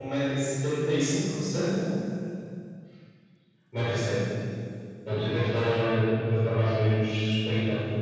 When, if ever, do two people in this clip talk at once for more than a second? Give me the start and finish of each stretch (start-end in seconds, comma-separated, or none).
none